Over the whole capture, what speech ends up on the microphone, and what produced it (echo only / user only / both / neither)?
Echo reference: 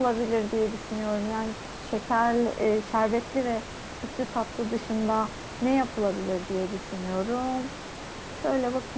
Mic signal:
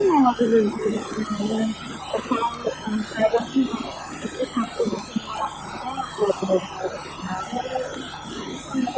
echo only